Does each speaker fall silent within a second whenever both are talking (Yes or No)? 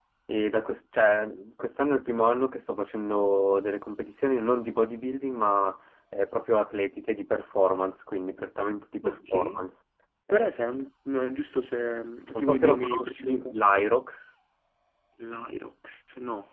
No